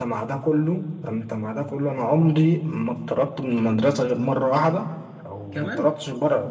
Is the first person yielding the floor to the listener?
No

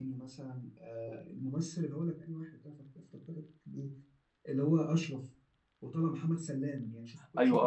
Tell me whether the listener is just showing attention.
No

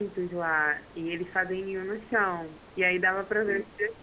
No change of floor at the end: Yes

